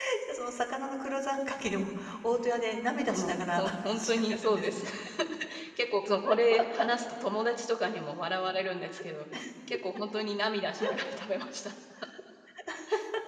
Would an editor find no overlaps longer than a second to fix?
No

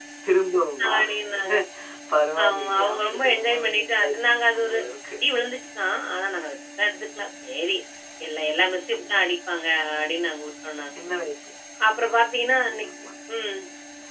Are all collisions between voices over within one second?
No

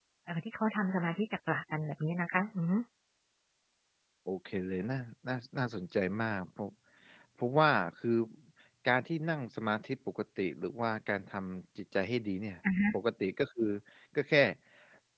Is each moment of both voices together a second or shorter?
Yes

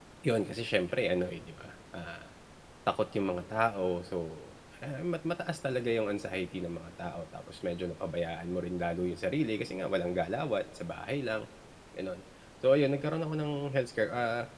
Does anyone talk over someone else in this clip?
No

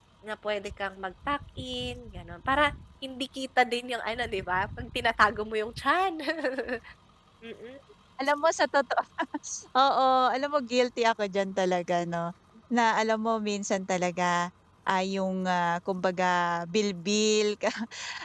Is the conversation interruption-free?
Yes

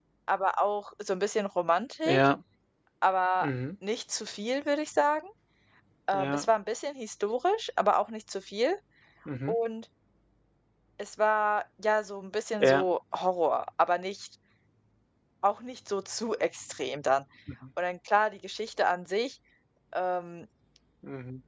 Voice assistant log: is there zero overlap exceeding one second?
Yes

